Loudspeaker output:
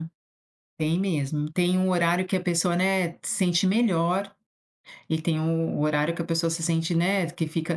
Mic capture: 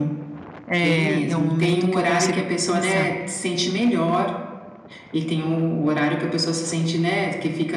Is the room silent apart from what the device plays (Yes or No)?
No